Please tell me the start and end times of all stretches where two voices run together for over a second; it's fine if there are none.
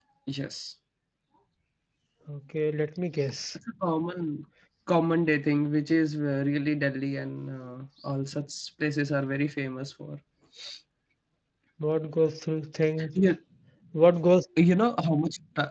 none

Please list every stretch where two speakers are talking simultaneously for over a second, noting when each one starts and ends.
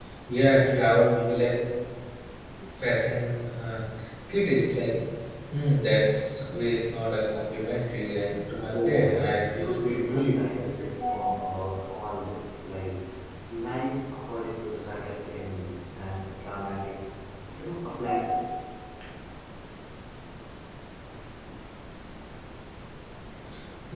8.7-10.3

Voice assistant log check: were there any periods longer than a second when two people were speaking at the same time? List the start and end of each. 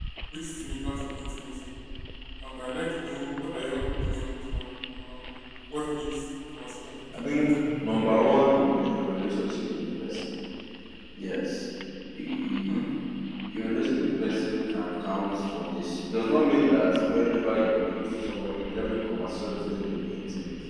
none

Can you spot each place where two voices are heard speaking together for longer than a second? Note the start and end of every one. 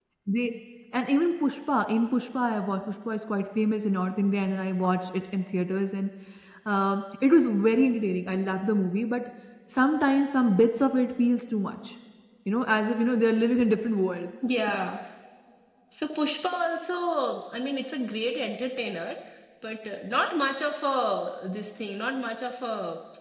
none

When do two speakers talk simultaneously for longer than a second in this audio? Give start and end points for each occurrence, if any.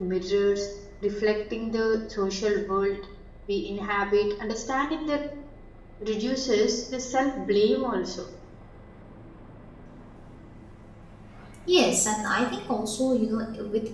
none

